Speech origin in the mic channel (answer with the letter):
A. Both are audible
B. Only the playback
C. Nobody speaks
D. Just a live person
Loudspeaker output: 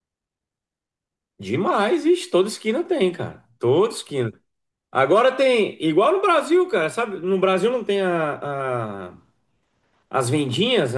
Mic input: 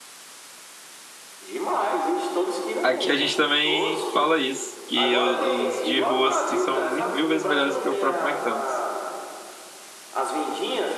A